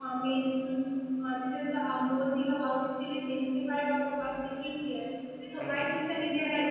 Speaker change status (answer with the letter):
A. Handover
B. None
B